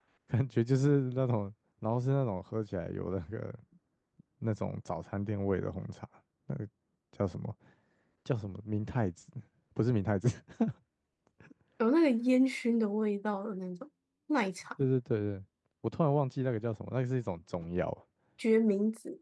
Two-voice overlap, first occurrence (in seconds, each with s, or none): none